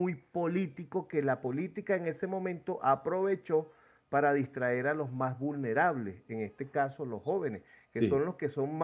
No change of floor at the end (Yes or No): Yes